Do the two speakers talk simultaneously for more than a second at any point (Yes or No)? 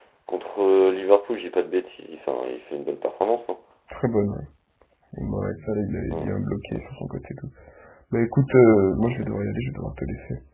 No